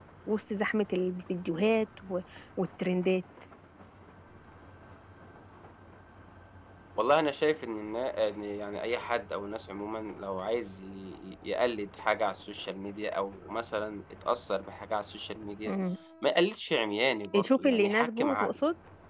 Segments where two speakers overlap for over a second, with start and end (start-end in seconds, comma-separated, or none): 17.3-18.6